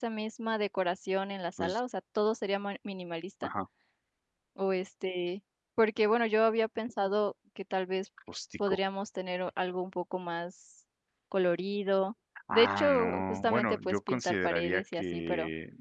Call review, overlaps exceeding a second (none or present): present